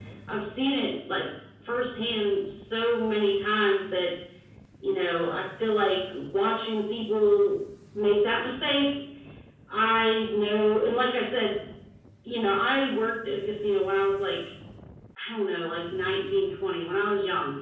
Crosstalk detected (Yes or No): No